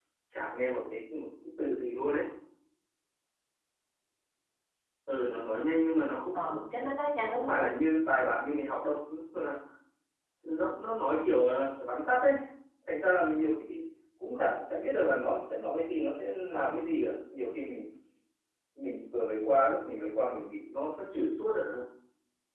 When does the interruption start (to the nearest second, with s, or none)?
6 s